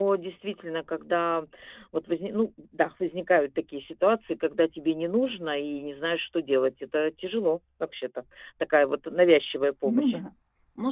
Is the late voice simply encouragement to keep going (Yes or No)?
No